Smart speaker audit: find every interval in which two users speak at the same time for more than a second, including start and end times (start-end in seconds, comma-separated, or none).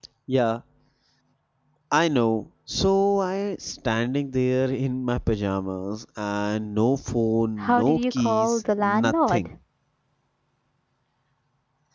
7.6-9.5